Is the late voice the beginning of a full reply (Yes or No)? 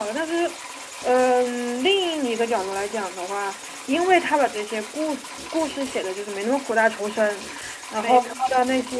No